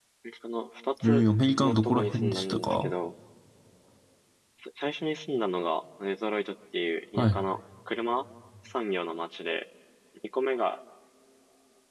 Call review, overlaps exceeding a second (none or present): present